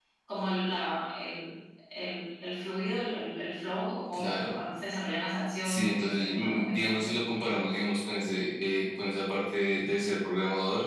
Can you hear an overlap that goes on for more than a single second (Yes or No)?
Yes